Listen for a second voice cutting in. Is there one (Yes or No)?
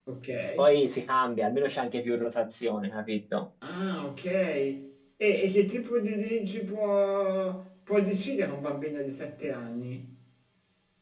No